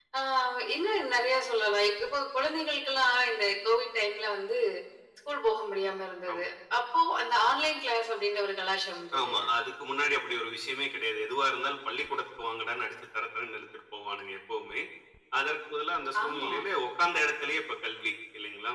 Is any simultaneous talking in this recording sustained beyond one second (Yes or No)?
No